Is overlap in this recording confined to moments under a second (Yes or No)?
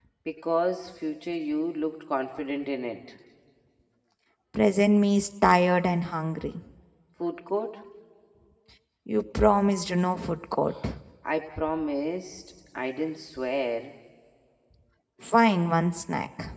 Yes